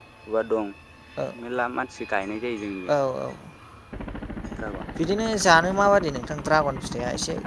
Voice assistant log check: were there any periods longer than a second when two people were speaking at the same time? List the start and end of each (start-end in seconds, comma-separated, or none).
none